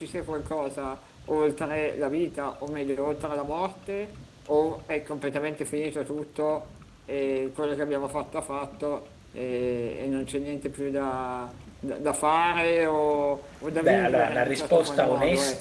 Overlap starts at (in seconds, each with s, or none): 13.7 s